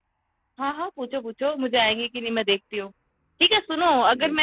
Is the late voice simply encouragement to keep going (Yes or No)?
Yes